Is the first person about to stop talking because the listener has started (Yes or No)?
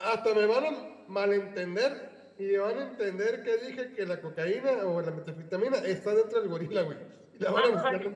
Yes